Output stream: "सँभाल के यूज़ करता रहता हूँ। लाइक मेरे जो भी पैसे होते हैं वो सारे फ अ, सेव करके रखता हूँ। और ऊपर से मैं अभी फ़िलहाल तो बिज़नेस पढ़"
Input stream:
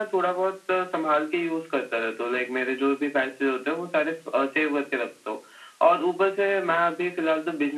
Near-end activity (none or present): none